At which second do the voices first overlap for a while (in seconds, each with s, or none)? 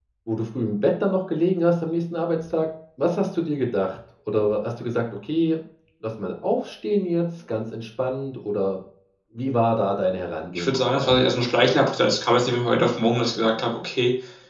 10.6 s